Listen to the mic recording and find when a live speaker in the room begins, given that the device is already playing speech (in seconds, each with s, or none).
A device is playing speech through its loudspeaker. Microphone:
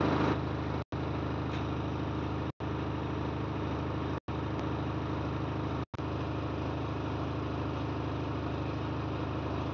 none